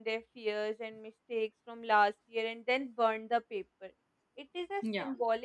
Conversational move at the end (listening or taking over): listening